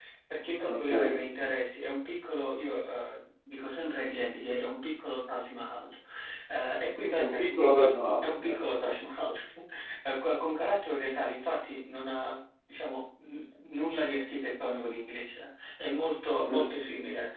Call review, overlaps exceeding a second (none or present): none